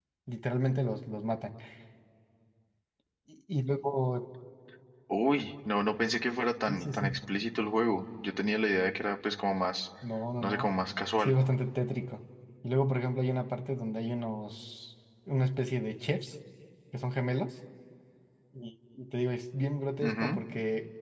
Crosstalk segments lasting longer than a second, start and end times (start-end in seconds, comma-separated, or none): none